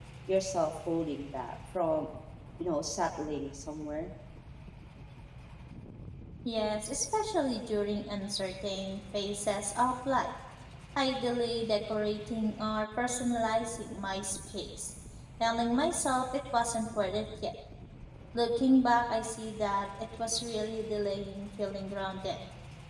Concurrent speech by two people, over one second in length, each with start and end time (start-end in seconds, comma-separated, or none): none